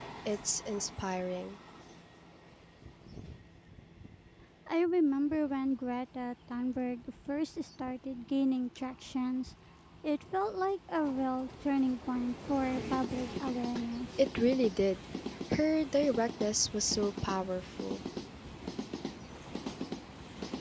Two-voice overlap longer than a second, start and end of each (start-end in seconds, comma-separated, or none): none